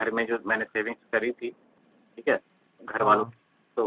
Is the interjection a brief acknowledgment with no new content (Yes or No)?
Yes